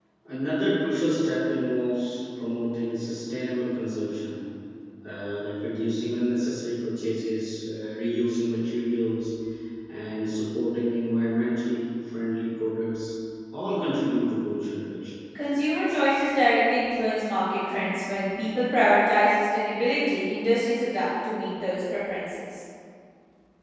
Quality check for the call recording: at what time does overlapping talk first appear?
none

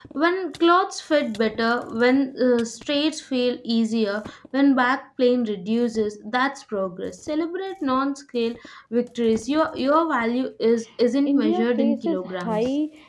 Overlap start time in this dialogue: 11.3 s

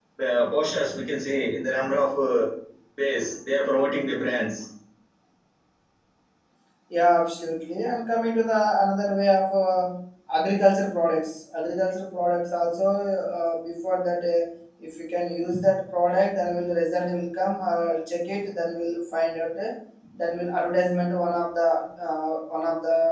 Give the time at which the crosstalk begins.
none

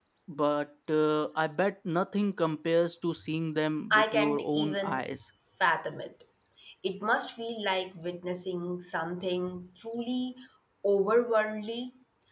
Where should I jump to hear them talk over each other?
3.9 s

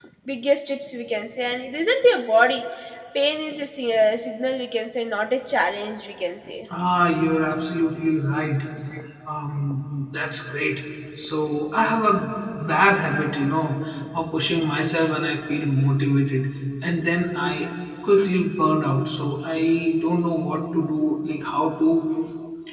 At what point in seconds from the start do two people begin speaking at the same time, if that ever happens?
none

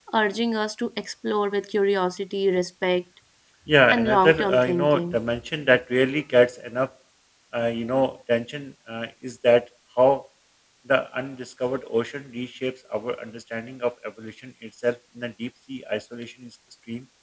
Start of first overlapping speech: 3.9 s

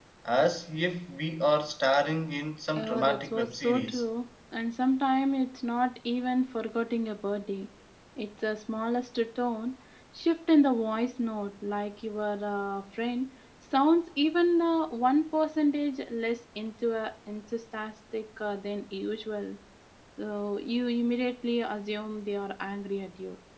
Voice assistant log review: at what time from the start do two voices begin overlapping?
2.8 s

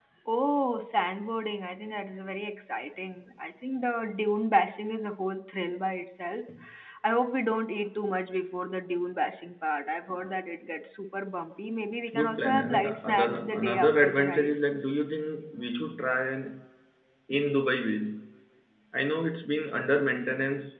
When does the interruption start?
12.1 s

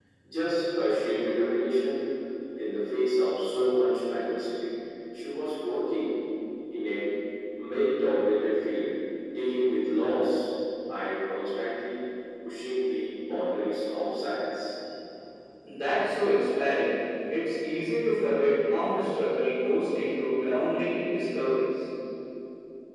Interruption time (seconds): none

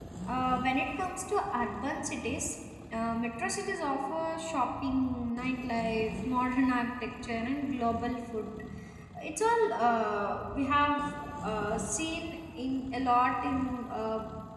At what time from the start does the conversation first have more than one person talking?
none

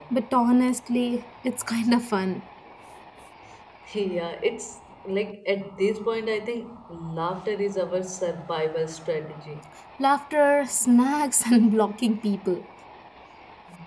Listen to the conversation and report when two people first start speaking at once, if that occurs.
none

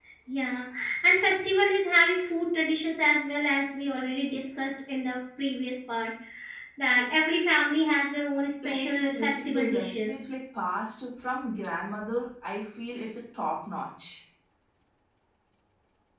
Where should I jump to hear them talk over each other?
8.6 s

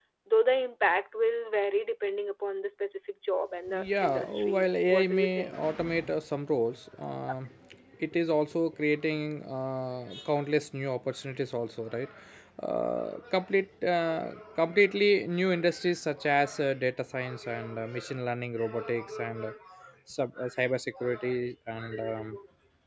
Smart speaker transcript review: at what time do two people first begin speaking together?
3.7 s

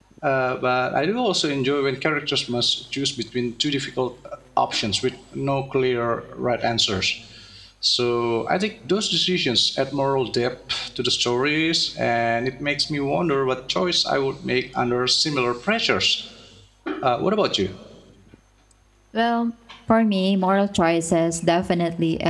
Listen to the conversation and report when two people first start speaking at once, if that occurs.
none

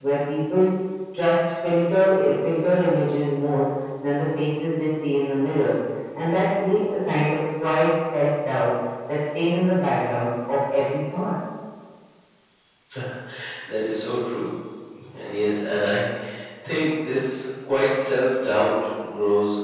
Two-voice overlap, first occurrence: none

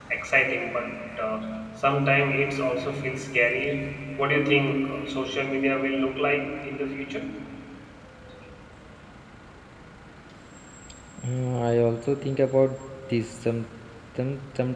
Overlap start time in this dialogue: none

